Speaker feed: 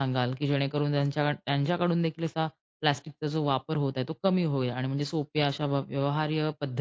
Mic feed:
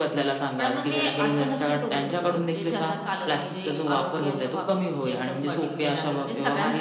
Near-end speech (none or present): present